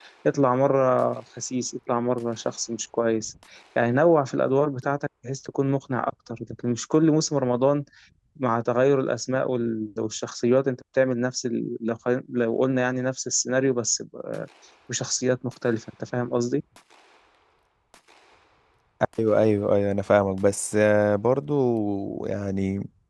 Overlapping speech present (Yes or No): No